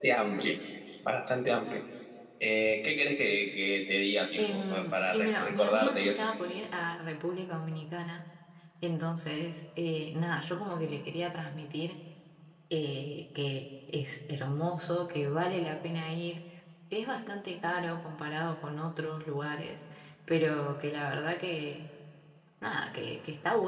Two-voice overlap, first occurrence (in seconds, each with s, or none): 4.3 s